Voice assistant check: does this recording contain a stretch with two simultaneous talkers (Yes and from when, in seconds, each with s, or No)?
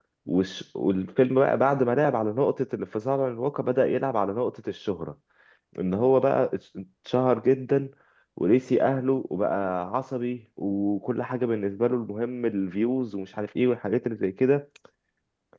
No